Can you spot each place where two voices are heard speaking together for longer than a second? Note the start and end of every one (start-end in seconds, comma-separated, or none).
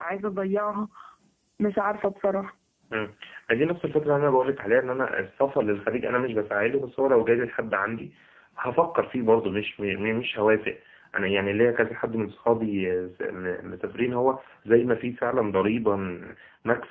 none